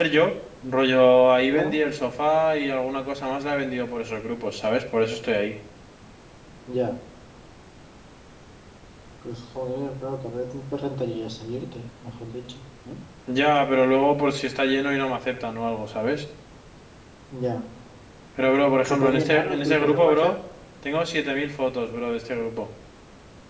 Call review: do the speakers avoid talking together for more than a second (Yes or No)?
No